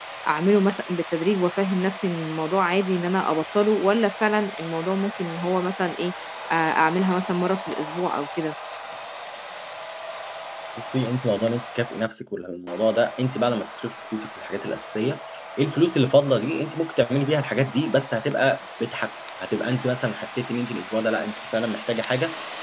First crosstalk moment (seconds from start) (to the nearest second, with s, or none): none